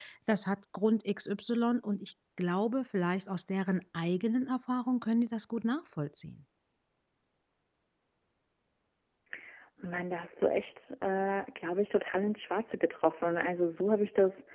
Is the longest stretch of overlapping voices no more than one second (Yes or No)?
Yes